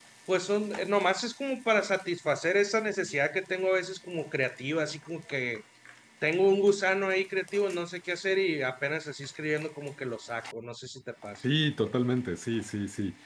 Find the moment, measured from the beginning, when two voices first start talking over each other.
none

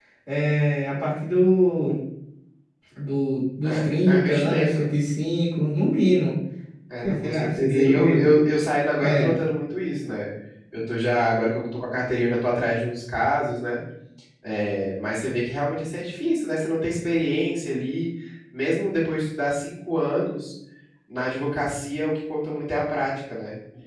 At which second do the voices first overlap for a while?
3.6 s

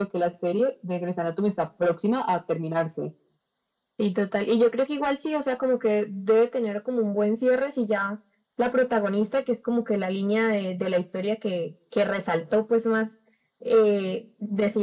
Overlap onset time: none

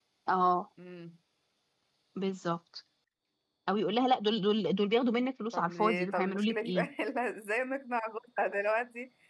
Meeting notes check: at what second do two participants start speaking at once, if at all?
5.5 s

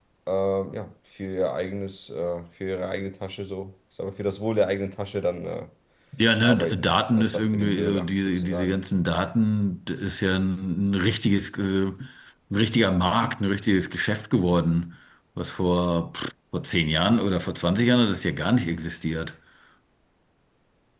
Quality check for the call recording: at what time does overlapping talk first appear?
6.4 s

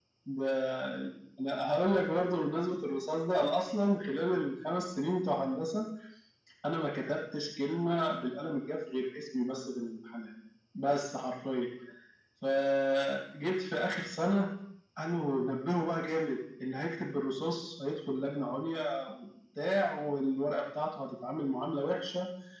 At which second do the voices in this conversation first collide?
none

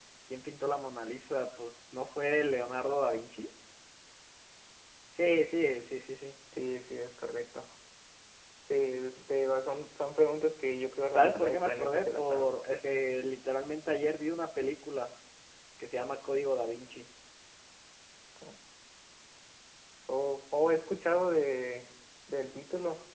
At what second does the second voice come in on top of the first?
11.1 s

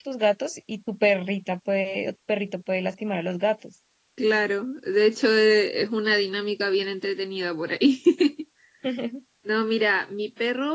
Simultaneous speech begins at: none

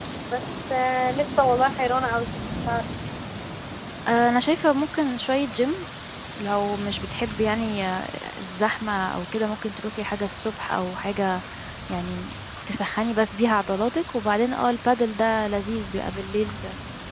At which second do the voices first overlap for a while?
none

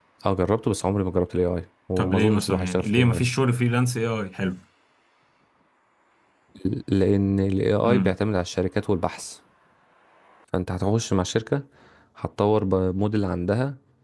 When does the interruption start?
2.0 s

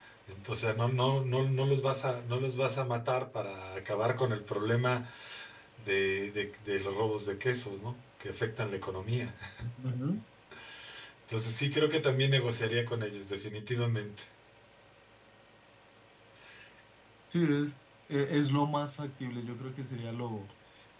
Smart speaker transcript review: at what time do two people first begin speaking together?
none

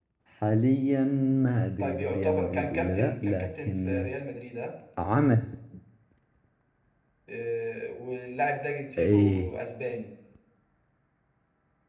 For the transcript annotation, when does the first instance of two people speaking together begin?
1.8 s

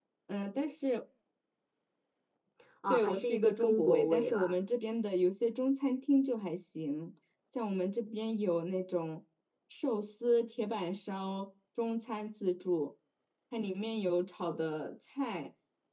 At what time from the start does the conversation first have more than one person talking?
2.9 s

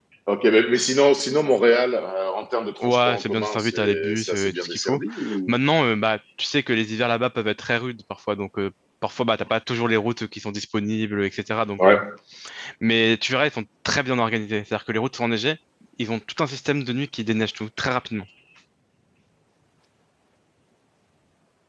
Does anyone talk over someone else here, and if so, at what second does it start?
2.8 s

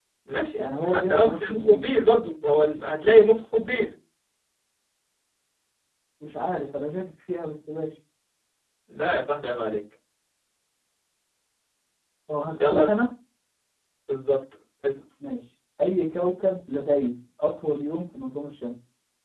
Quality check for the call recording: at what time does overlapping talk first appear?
0.6 s

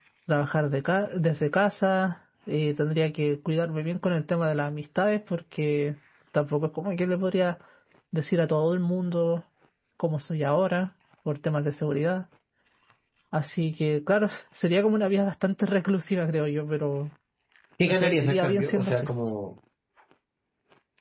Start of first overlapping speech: 17.8 s

